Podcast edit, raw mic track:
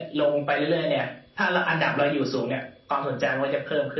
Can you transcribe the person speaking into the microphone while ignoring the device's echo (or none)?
none